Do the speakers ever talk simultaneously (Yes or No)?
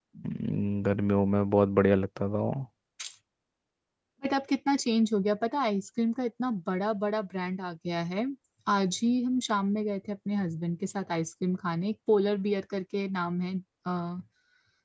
No